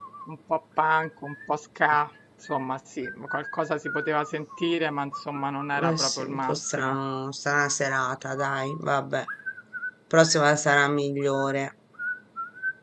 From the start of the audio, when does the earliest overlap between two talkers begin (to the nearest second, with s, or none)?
6 s